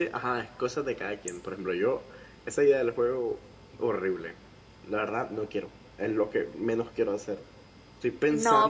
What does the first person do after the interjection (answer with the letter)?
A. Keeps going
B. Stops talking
B